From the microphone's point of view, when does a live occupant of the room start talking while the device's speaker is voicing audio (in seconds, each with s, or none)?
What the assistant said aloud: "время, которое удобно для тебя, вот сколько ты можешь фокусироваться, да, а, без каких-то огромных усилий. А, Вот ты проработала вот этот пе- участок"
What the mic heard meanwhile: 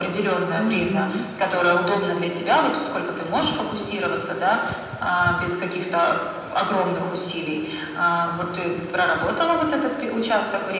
0.6 s